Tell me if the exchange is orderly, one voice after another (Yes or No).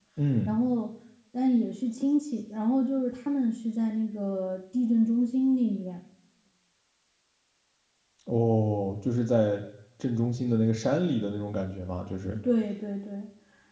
Yes